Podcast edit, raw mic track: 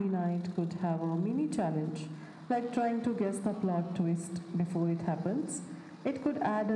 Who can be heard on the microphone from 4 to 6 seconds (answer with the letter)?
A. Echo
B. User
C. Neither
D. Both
A